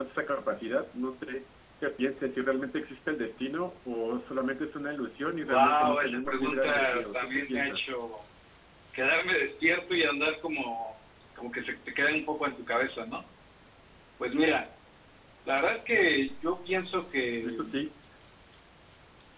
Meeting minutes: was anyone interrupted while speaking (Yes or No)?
Yes